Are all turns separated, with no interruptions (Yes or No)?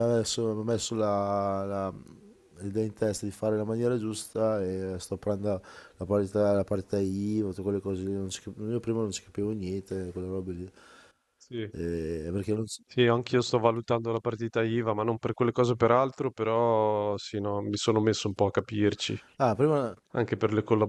Yes